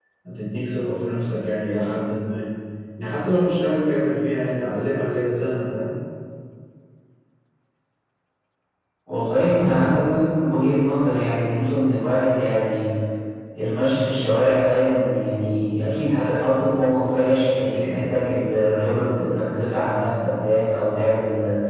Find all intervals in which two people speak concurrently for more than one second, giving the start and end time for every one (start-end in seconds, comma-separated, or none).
none